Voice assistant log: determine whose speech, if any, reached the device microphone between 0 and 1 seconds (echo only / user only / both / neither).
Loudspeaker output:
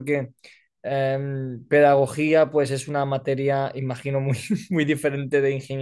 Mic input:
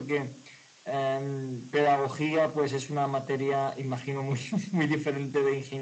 echo only